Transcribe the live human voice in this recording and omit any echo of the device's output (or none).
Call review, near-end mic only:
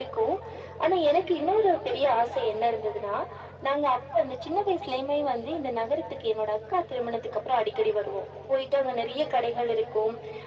none